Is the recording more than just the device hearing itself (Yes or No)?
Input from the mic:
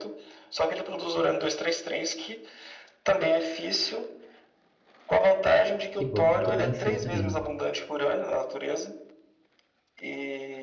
Yes